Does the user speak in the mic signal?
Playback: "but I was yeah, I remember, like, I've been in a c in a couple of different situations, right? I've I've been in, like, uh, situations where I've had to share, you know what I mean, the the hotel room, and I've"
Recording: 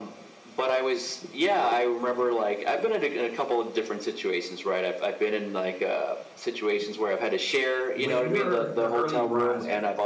Yes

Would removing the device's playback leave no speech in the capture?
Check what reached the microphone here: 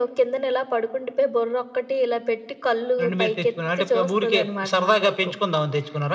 Yes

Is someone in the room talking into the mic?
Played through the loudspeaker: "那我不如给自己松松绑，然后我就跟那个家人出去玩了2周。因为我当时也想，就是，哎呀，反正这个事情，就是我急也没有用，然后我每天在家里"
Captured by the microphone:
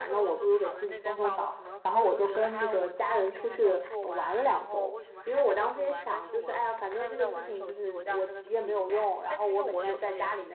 Yes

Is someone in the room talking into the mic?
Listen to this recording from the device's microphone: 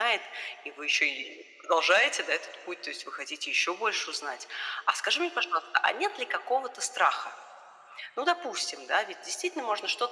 No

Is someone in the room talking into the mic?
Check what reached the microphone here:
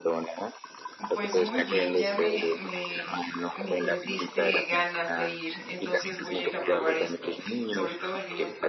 Yes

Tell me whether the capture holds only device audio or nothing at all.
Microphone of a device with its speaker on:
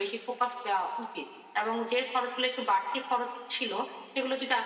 Yes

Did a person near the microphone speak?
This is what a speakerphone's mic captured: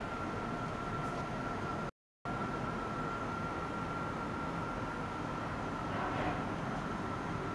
No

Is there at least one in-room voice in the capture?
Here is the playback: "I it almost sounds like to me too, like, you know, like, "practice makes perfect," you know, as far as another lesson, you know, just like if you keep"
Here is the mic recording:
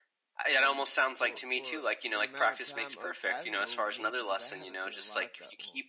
Yes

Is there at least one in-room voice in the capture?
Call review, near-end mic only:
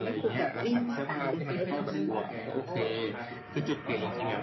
Yes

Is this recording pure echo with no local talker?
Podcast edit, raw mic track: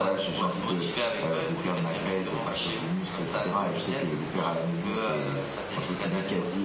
Yes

